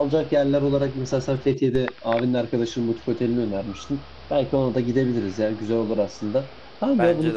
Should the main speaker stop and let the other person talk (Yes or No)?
No